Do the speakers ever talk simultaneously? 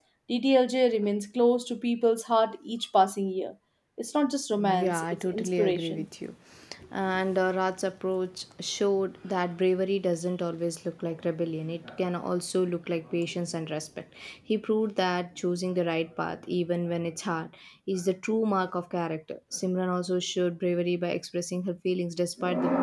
Yes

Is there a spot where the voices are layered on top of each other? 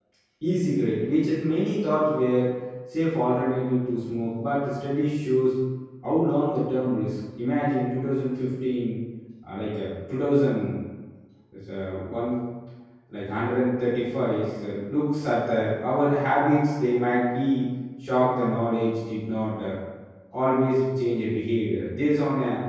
No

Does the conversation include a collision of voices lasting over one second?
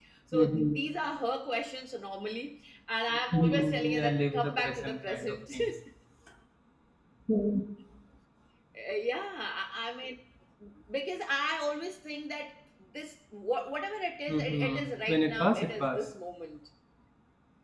Yes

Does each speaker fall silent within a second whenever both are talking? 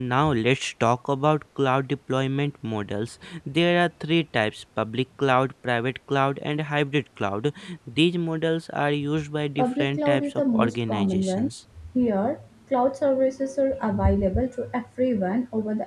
No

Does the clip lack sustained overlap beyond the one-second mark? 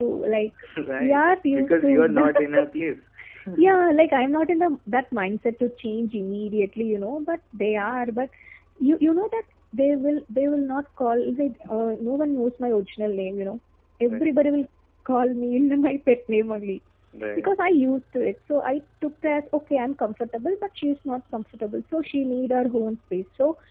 No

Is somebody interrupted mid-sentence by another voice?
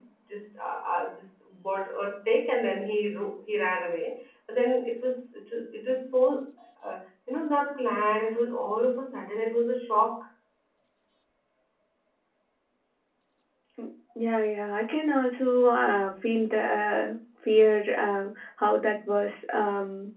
No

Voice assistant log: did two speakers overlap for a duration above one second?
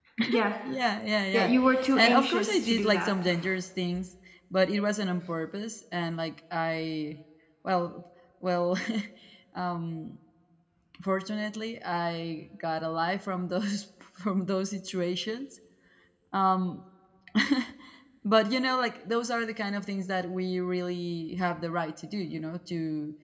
Yes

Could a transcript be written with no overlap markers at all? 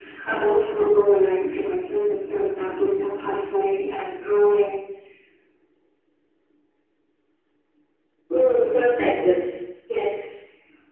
Yes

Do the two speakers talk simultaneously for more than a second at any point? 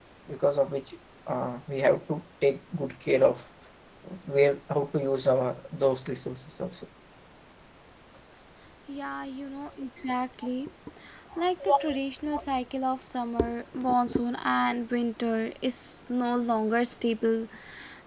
No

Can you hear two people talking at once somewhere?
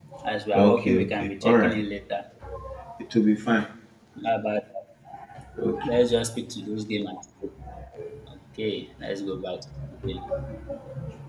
Yes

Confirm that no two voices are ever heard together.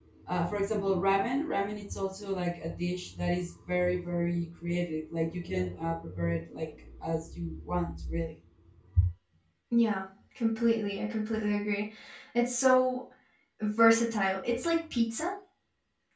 Yes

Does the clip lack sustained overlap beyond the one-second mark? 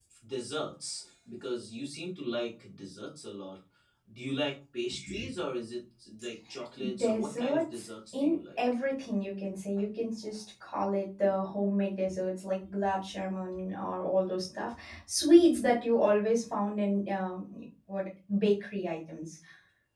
No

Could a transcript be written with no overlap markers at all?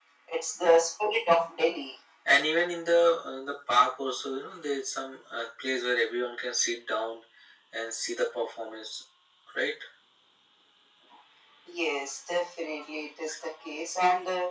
Yes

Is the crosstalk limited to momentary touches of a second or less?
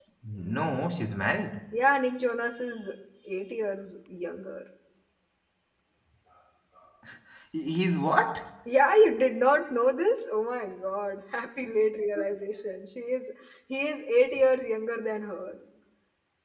Yes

